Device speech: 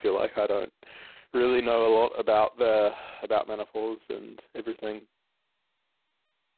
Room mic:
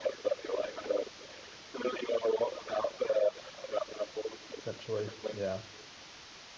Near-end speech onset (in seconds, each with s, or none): 4.6 s